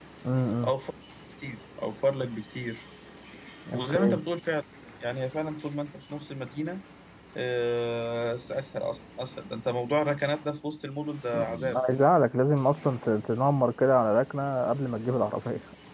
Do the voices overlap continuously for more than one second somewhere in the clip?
No

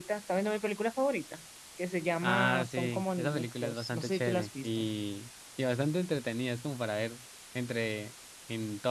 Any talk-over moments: Yes, from 2.2 s

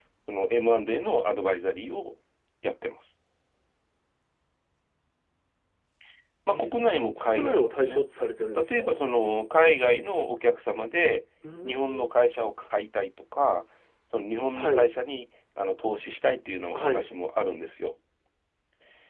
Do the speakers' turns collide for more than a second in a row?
Yes, from 6.5 s

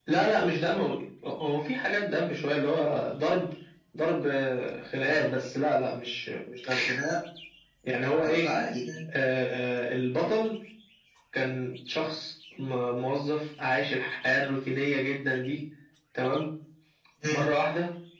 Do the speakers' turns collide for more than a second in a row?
No

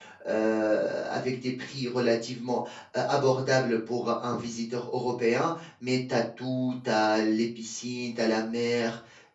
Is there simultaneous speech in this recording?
No

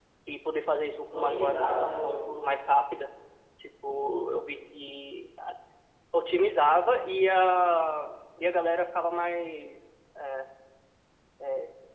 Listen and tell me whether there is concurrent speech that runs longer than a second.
Yes, from 1.1 s

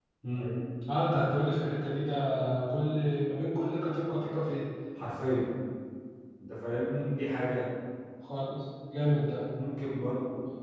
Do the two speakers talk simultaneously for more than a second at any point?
No

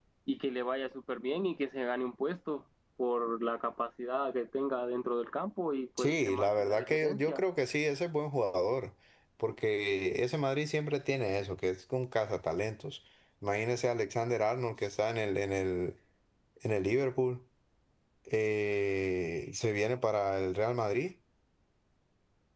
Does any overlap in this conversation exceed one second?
Yes, from 6.0 s

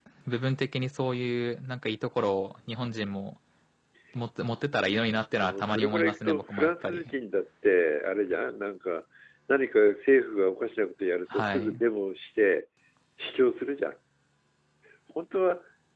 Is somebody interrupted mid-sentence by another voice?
Yes, from 5.4 s

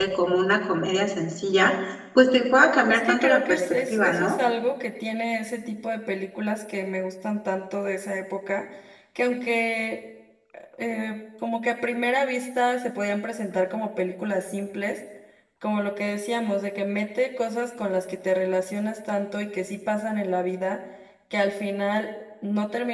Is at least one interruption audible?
Yes, from 2.9 s

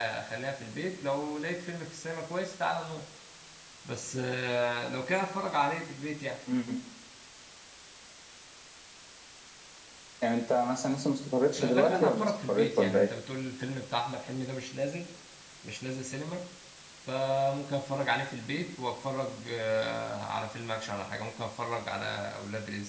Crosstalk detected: Yes, from 11.5 s

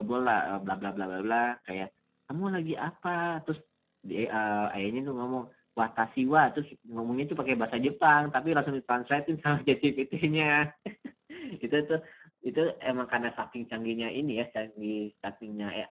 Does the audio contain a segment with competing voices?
No

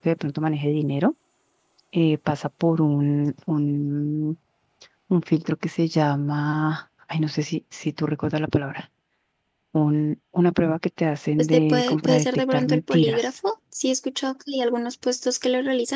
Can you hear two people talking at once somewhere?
Yes, from 11.4 s

